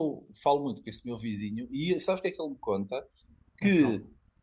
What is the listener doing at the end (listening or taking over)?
listening